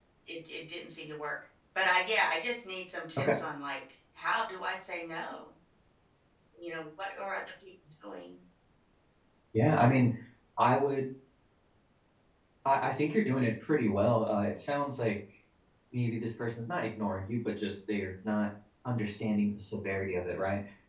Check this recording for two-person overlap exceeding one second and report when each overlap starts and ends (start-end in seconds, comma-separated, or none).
none